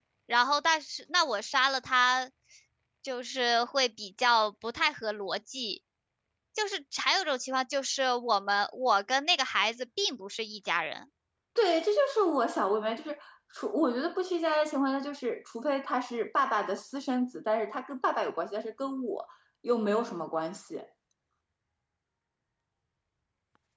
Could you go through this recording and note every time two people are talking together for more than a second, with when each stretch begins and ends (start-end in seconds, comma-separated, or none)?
none